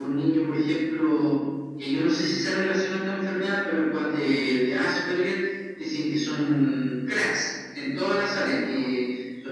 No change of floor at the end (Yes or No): Yes